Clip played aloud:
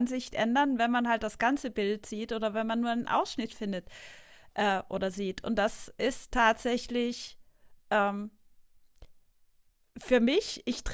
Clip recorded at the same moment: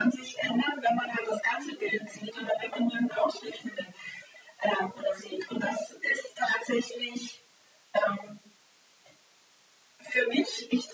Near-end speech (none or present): none